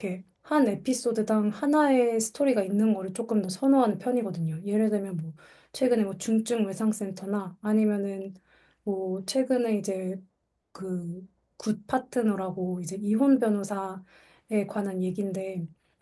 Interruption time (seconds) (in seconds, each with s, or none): none